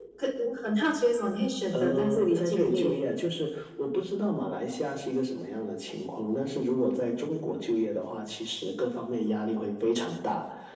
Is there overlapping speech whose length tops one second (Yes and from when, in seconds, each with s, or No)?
Yes, from 1.7 s